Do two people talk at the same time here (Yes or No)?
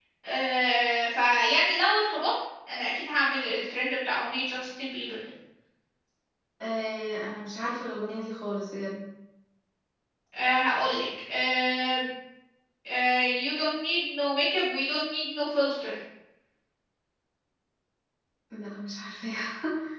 No